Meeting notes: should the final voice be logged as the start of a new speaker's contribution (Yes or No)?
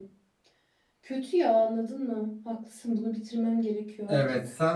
Yes